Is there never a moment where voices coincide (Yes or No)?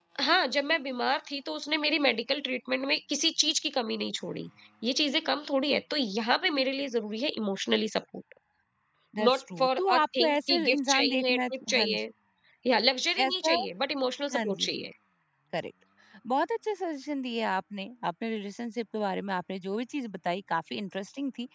No